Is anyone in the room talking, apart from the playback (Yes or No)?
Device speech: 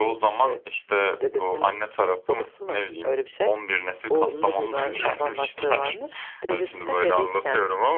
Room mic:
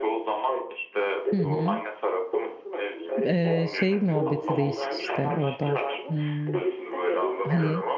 Yes